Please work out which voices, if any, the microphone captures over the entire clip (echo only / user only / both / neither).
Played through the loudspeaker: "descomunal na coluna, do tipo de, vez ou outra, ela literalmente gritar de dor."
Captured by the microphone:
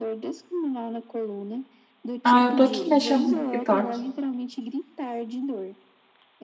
both